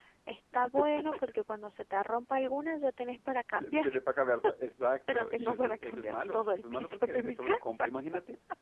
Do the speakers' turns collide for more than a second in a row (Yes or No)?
Yes